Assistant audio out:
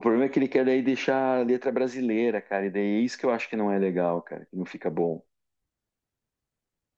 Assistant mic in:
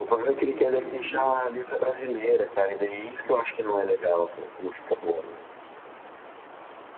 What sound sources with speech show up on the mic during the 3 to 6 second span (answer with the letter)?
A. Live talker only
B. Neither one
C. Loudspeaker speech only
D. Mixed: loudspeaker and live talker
C